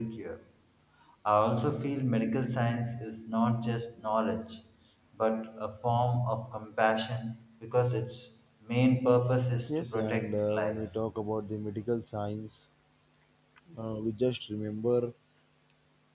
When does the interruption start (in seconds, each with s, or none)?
9.7 s